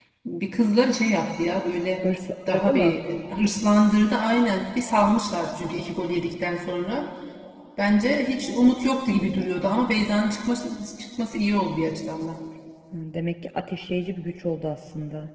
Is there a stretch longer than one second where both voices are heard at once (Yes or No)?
No